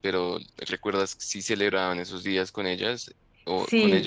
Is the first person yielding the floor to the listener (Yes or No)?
Yes